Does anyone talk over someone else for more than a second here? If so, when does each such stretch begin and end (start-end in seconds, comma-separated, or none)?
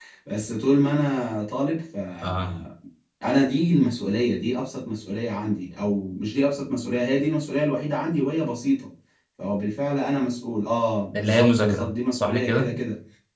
11.2-12.7